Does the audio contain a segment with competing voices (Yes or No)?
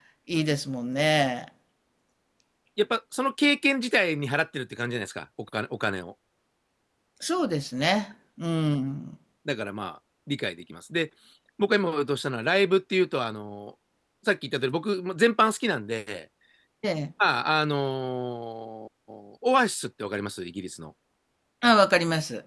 No